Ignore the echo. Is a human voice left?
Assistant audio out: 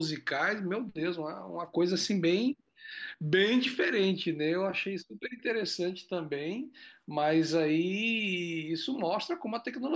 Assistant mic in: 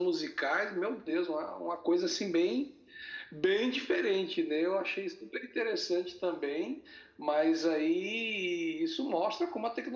No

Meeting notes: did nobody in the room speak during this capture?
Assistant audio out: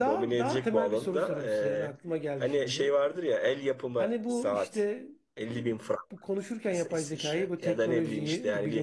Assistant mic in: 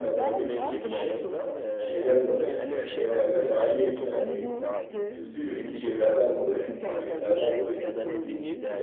No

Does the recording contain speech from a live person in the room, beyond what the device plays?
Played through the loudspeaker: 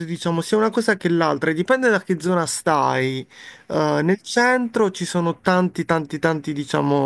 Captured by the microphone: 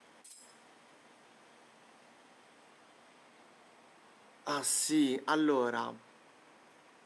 Yes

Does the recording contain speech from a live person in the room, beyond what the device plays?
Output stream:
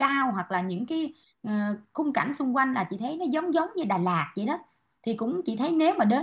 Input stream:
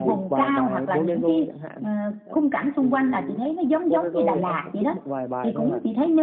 Yes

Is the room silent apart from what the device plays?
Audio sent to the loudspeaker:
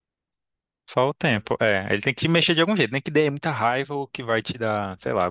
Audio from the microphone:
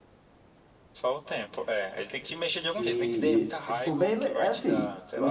No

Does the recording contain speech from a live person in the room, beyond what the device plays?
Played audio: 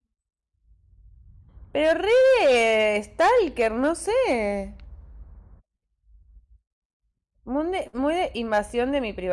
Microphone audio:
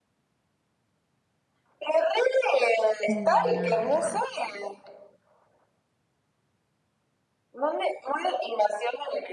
Yes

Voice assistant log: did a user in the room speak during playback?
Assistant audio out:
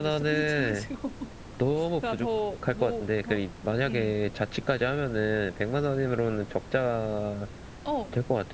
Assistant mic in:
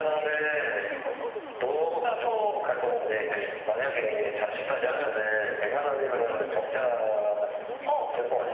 Yes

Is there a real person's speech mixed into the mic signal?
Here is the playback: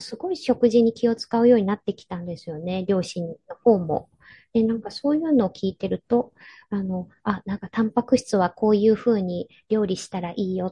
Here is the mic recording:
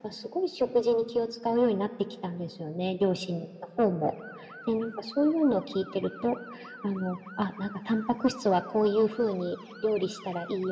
No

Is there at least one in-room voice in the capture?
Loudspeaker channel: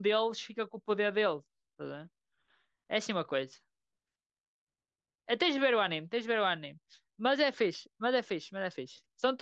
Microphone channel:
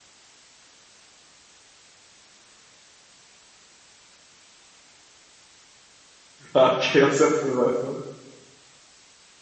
Yes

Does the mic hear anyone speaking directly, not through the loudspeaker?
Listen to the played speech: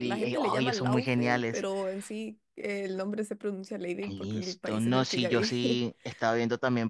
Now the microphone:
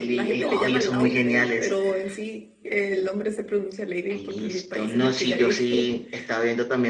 No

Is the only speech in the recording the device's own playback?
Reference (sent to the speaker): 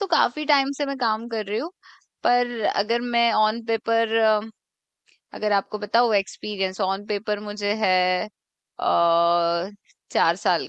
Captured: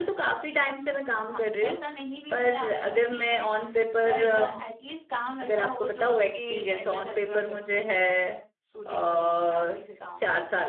No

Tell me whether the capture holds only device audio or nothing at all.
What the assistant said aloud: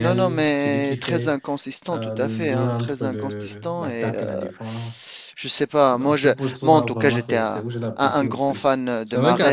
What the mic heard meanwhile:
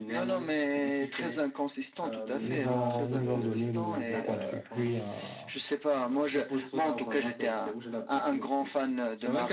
No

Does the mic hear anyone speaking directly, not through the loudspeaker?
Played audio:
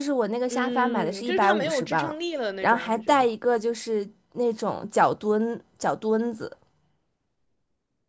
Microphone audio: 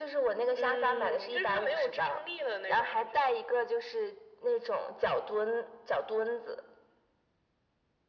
No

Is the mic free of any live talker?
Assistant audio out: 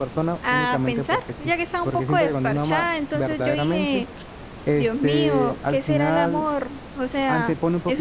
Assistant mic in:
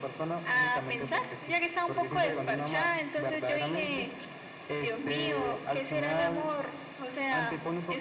No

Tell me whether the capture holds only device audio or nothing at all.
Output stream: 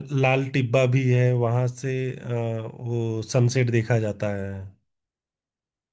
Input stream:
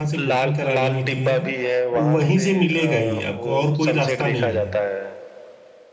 No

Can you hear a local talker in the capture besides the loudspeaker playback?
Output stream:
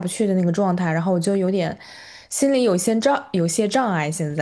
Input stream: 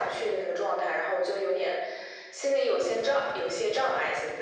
No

